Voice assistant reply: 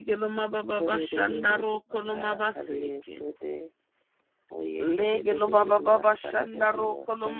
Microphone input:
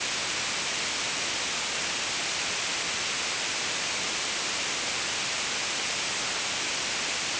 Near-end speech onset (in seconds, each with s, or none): none